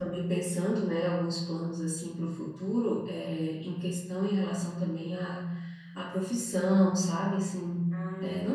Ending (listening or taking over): listening